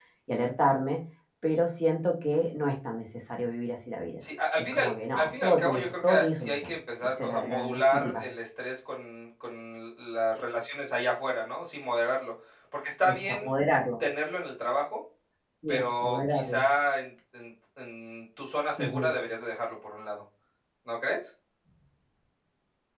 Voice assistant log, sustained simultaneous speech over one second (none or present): present